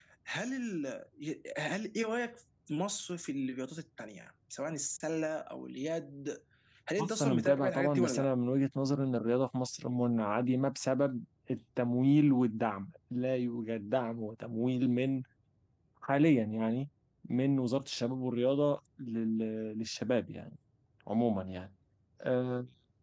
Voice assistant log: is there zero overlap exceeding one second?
No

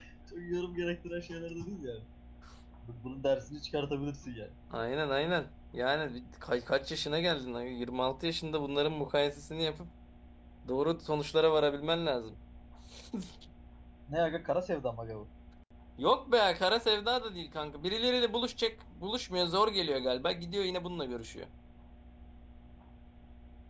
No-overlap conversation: Yes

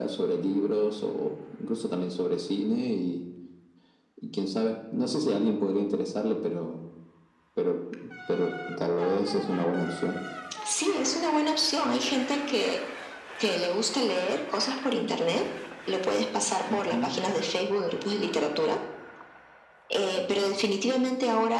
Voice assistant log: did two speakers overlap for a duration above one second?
No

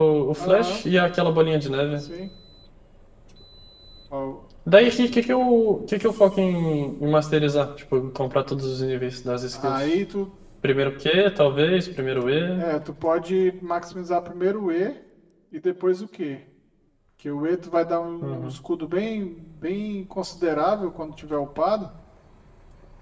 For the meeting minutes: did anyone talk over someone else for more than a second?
No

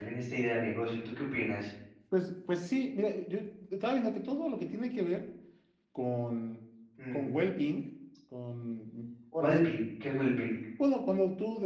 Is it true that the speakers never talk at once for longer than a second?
Yes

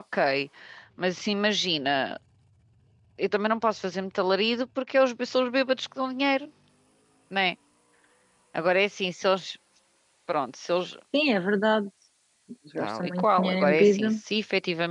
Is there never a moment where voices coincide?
No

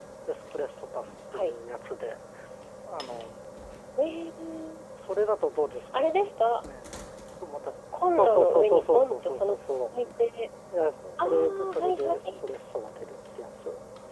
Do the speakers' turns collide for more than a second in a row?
Yes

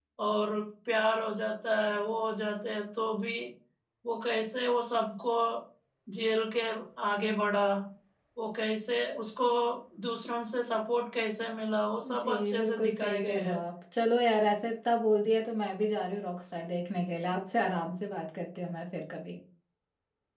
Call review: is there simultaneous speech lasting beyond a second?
Yes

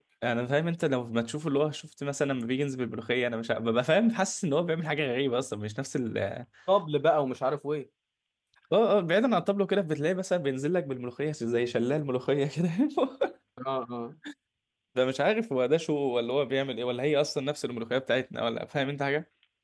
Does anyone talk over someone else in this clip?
No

